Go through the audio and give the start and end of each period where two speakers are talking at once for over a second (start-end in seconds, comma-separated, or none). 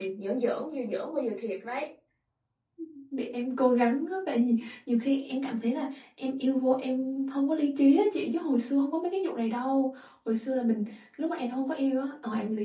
none